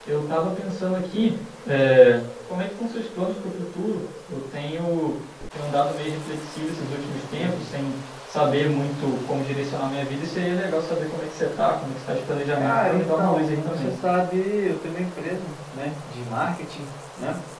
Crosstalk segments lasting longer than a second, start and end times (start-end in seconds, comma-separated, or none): 12.6-13.9